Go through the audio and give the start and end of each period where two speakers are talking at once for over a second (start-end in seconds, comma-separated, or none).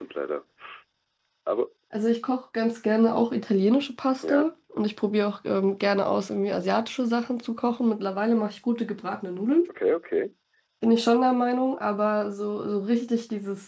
none